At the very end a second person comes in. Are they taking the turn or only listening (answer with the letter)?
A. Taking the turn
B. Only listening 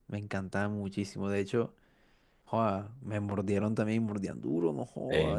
B